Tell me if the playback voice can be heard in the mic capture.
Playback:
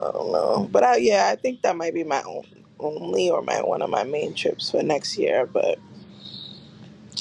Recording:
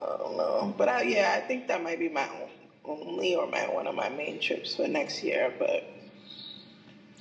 Yes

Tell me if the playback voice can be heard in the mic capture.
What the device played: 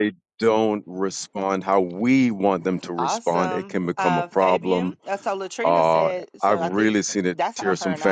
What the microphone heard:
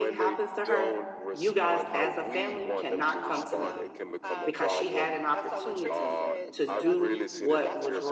Yes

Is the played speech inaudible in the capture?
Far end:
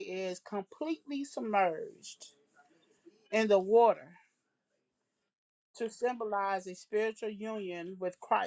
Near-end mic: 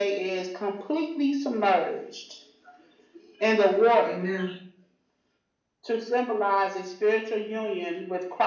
No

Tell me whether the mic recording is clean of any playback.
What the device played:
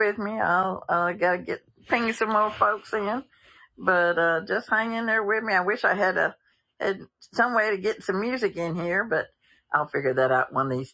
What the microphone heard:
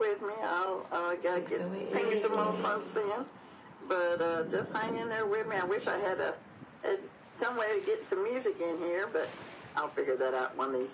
No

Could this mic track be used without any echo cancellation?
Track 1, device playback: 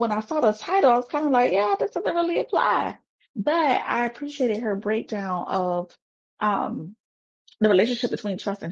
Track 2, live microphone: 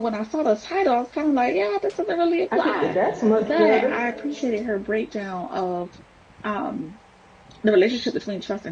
No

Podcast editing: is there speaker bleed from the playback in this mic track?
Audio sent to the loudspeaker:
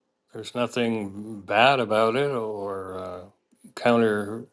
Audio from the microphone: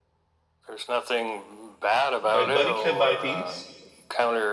Yes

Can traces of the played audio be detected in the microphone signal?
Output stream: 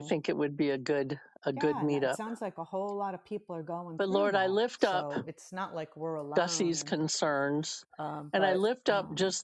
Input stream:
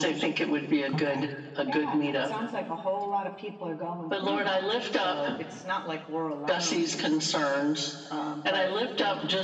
Yes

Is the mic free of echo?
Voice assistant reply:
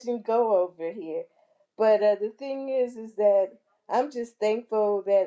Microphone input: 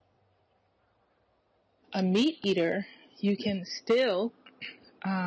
Yes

